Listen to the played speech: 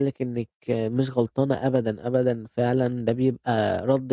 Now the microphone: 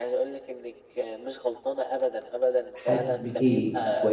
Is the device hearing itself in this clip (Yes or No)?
Yes